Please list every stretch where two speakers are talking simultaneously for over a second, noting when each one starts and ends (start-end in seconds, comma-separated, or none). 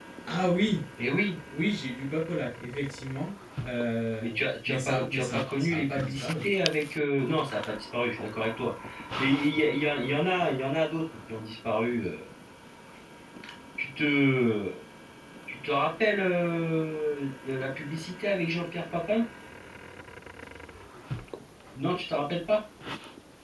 4.7-6.4